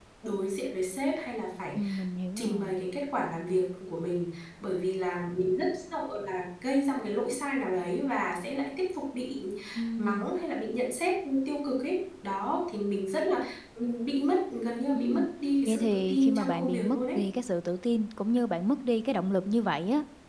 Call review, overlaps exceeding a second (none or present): present